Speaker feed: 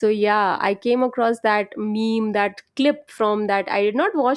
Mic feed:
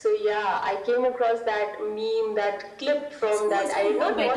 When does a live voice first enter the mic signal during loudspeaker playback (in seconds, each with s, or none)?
3.3 s